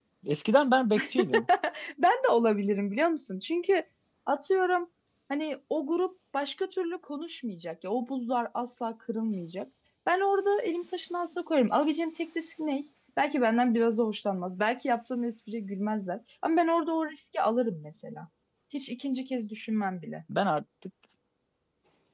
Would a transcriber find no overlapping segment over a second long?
Yes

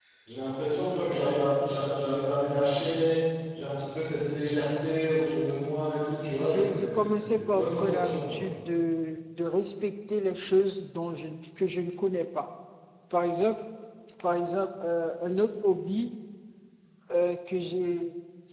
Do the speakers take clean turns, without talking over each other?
No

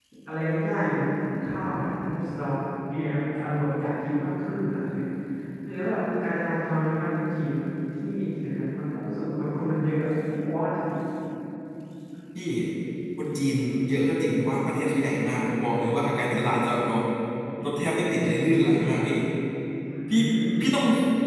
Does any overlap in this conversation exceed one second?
No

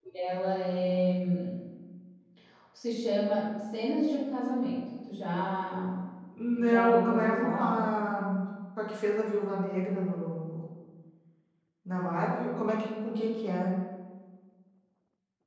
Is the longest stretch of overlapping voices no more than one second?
No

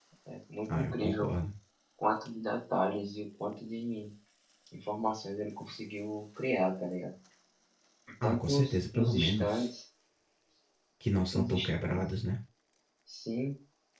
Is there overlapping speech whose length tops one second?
Yes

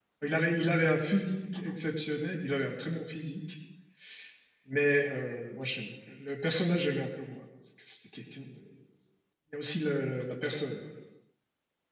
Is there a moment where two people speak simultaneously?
No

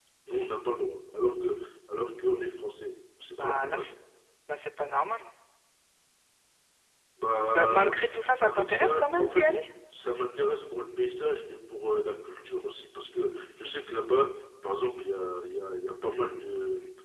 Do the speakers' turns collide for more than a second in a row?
Yes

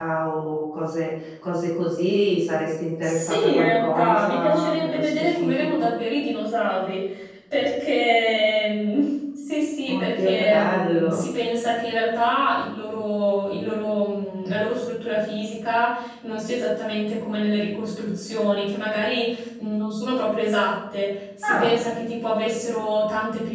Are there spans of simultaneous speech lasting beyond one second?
Yes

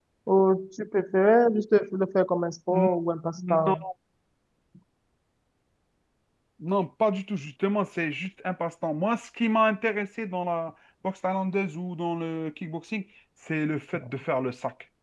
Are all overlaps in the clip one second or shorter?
Yes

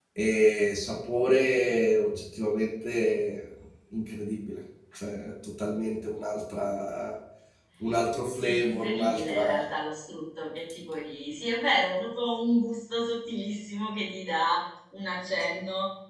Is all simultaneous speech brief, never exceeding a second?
No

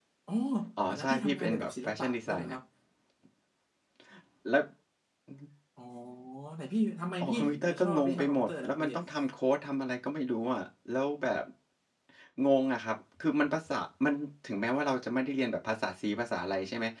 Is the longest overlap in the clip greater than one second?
Yes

